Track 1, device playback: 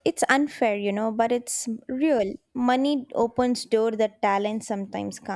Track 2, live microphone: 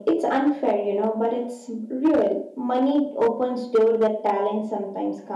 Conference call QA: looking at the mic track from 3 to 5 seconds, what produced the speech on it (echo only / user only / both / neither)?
echo only